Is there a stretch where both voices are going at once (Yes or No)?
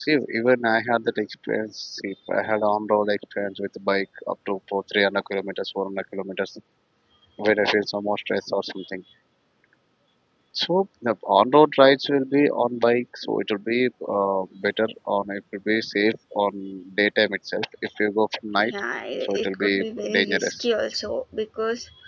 Yes